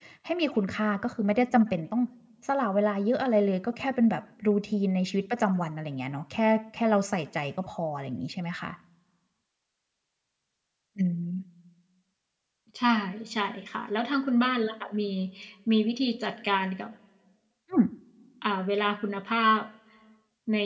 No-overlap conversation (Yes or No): Yes